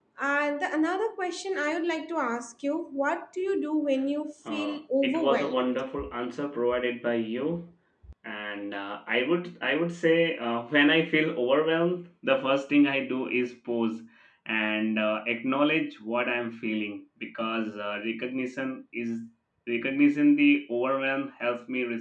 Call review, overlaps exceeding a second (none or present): present